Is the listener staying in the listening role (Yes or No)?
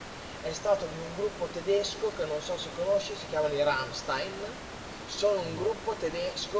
Yes